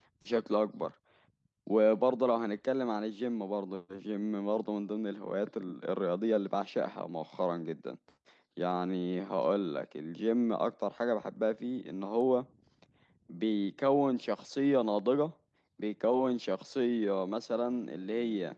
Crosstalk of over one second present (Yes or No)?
No